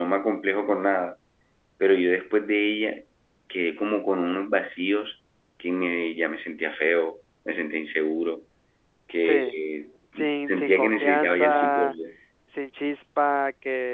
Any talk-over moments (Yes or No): Yes